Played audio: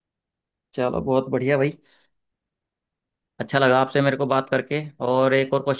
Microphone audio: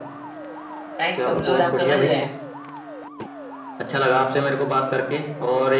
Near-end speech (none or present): present